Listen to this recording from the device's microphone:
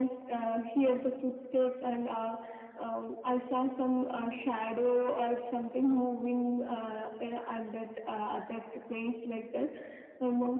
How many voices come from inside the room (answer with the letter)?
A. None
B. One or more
A